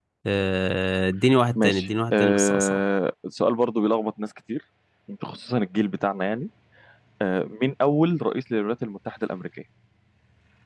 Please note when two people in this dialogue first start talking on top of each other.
1.6 s

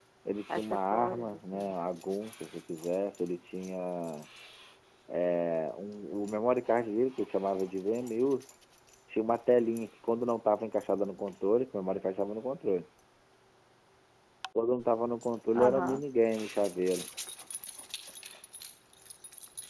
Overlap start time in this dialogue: 0.5 s

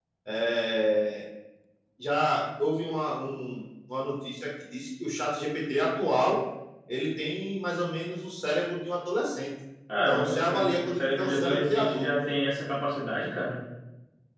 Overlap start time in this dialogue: 10.1 s

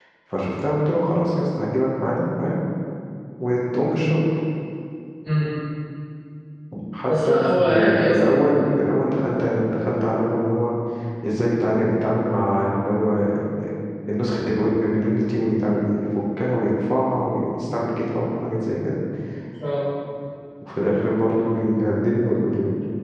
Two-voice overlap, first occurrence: 7.0 s

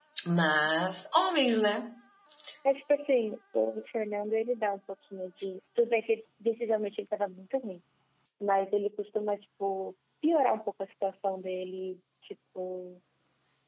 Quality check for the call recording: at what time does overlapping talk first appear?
none

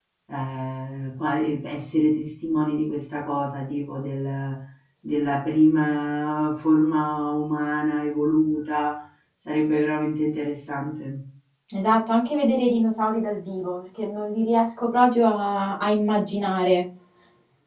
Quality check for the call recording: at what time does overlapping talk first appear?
none

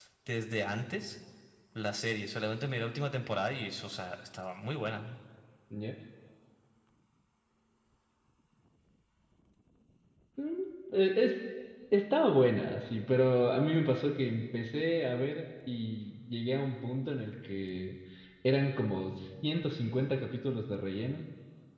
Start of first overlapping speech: none

